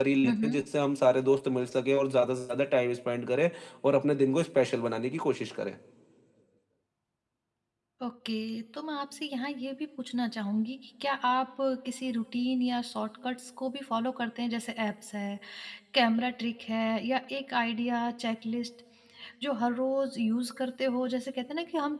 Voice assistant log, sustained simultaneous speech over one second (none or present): none